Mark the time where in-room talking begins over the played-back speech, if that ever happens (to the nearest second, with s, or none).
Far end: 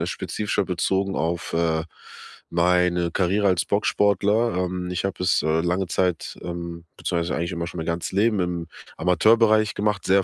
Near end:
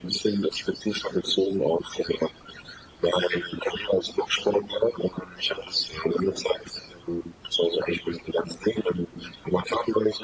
none